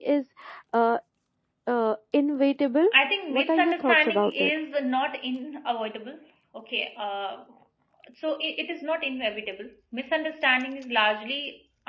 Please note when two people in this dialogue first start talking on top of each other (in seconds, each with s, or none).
3.3 s